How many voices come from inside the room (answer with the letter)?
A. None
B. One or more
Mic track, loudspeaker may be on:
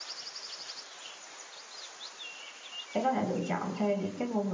B